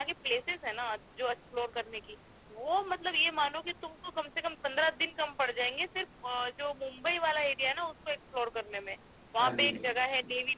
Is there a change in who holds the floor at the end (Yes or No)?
No